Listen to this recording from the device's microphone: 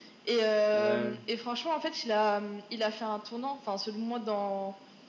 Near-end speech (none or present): present